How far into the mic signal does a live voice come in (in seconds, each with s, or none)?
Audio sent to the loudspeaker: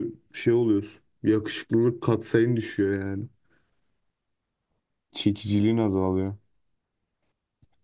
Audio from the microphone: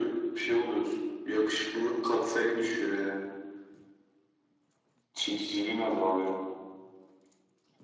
none